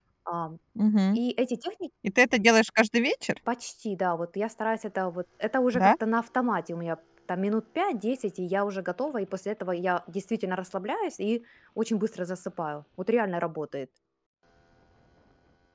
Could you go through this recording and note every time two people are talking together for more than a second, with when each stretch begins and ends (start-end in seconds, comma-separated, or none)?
none